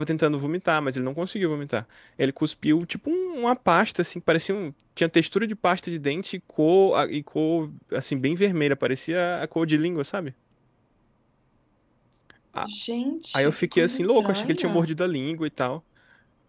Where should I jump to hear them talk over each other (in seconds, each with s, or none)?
13.3 s